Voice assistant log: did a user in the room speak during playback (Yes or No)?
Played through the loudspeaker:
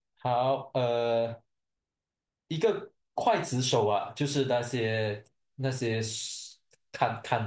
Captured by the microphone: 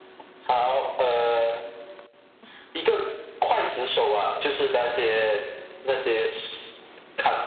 No